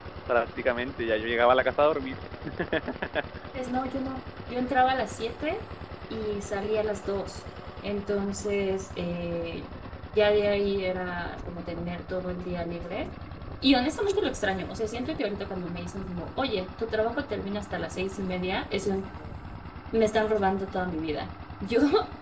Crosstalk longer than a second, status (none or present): none